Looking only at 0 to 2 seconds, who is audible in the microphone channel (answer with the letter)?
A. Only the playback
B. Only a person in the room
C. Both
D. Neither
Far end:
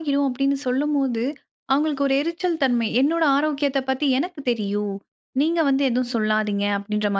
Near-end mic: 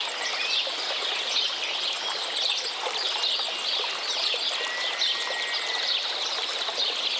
D